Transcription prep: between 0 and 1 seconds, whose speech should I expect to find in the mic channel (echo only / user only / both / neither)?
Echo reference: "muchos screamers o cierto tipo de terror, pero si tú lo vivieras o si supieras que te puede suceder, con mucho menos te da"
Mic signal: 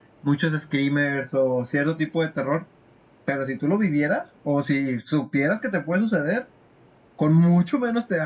echo only